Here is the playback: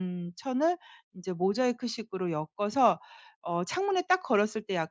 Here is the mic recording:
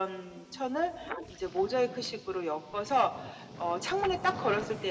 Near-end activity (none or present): none